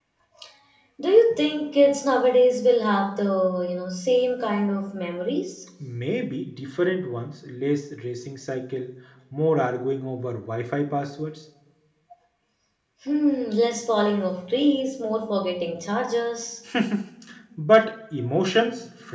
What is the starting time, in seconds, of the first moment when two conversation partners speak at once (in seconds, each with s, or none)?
none